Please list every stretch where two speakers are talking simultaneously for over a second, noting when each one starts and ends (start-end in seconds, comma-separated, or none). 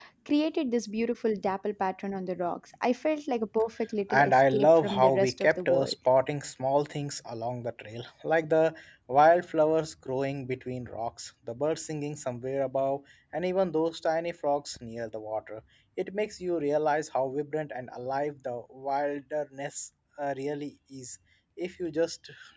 4.1-5.9